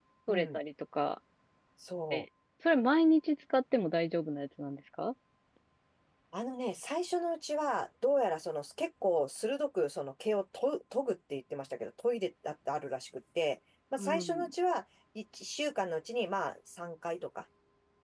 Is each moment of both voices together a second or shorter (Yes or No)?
Yes